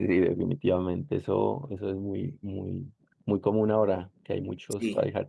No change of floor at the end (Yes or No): Yes